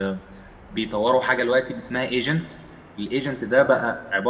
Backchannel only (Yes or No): Yes